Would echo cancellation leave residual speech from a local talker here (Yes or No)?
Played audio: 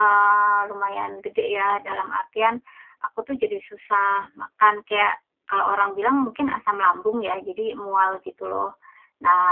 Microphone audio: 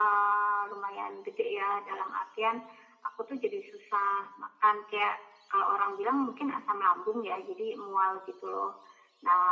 No